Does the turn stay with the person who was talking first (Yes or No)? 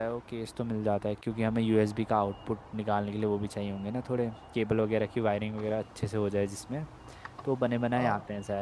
Yes